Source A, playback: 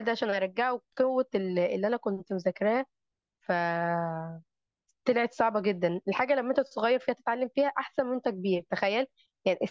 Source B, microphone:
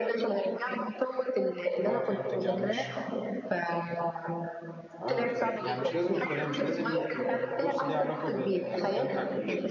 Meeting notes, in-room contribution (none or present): present